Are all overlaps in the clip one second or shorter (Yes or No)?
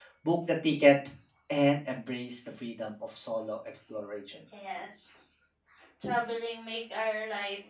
Yes